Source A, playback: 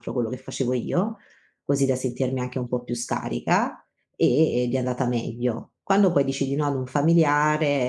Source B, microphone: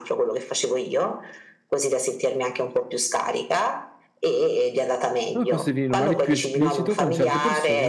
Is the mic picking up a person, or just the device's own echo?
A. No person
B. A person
B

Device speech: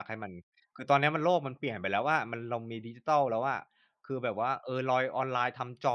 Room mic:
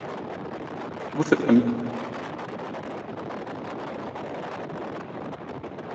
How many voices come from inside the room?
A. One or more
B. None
A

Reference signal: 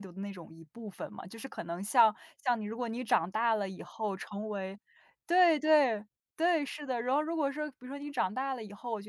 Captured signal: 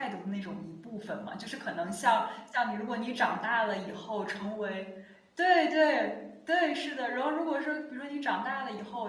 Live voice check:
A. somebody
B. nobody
B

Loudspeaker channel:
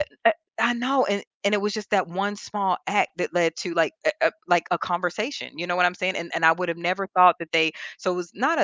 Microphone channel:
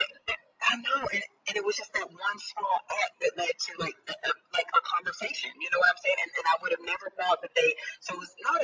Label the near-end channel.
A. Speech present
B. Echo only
B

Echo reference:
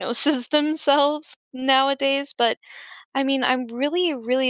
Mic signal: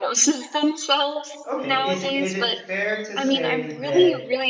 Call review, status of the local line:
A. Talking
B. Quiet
A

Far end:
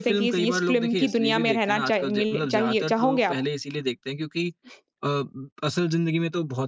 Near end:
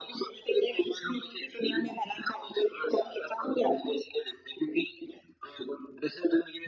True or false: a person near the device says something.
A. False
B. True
A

